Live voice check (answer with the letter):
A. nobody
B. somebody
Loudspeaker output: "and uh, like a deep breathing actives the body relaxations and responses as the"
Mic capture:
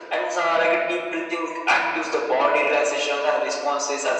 A